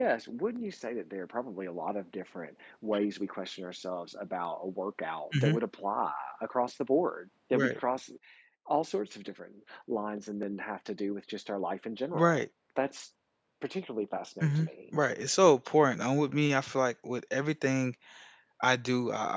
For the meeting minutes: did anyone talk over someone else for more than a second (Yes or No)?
No